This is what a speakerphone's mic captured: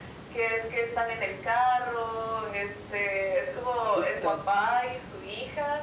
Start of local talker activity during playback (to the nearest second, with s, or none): 4 s